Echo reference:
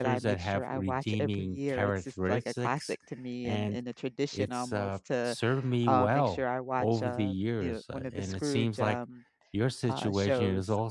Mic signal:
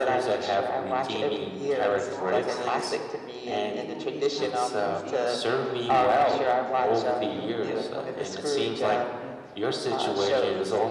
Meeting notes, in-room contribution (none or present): present